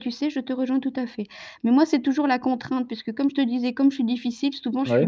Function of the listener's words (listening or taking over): listening